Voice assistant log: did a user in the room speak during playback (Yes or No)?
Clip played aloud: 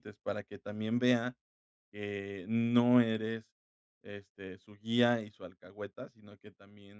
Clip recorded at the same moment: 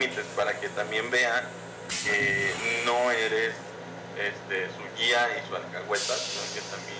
No